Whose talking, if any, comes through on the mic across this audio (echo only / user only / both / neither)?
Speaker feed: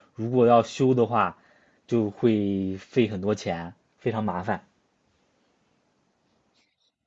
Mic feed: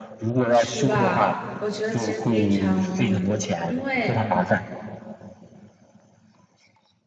both